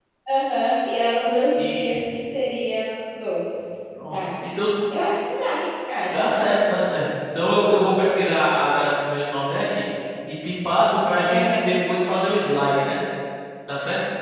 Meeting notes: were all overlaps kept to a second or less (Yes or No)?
Yes